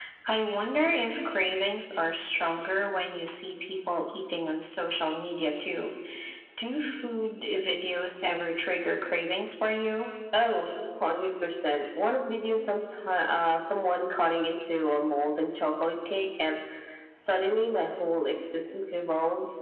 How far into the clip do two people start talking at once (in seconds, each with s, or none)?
none